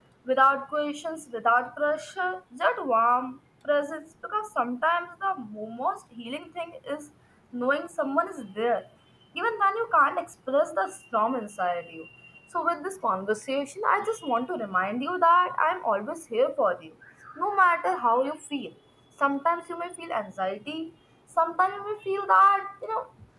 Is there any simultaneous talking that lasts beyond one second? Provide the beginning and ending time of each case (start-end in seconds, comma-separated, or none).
none